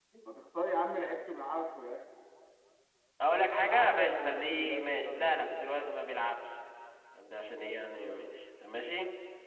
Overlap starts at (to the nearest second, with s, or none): 4 s